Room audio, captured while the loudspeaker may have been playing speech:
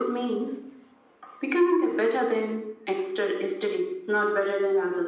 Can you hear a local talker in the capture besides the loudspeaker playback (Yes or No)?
No